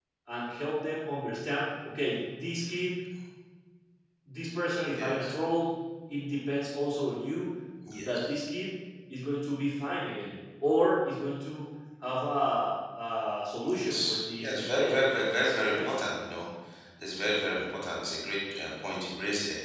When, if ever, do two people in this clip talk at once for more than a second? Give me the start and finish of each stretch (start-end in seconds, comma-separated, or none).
13.6-16.0